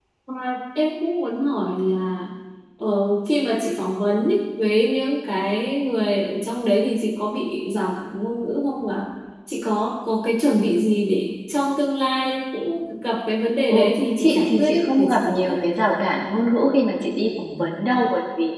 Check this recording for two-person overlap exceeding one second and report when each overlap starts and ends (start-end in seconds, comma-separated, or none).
13.7-15.5